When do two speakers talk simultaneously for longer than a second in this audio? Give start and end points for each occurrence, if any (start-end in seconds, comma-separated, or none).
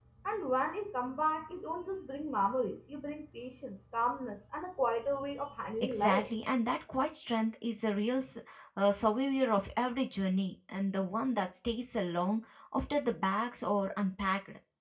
none